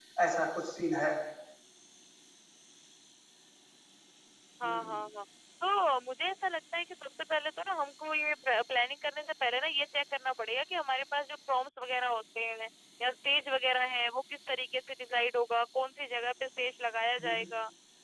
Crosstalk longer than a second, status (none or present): none